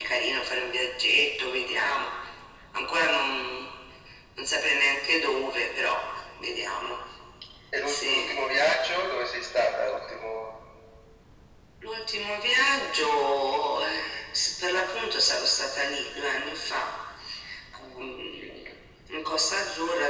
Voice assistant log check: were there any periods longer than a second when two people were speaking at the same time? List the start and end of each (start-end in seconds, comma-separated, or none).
none